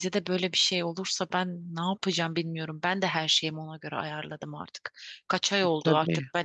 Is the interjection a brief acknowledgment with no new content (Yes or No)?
Yes